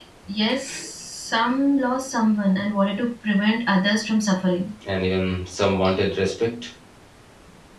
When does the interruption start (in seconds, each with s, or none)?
none